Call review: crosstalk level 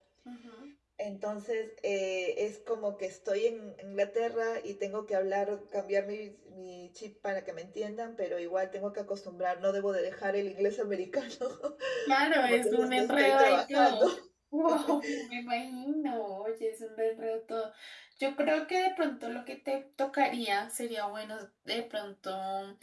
present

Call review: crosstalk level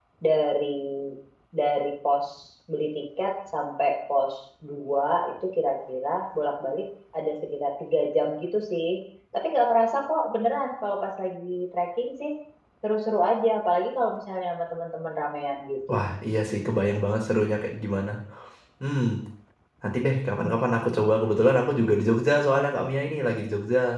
none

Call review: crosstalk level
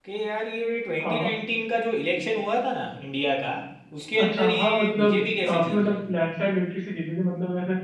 present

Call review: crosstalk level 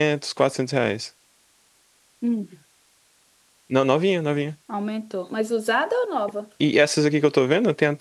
none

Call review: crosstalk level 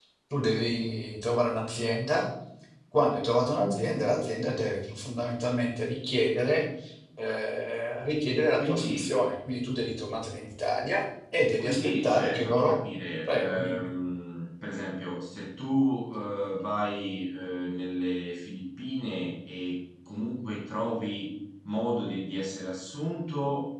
present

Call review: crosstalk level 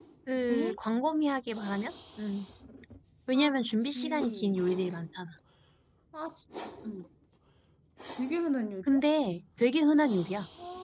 present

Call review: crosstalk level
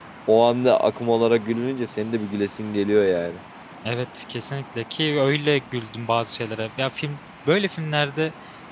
none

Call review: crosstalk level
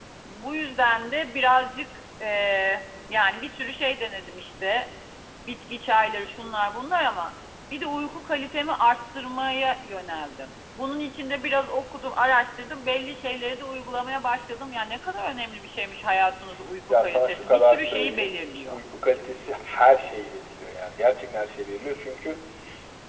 present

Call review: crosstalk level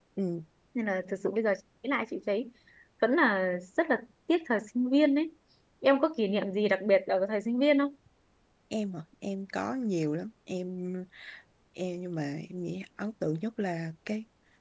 none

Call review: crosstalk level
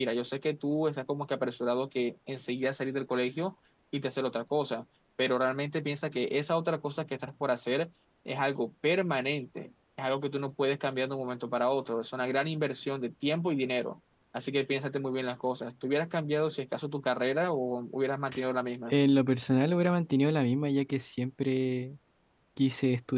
none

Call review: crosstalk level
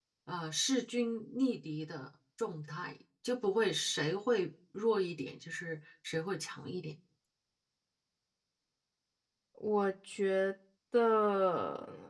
none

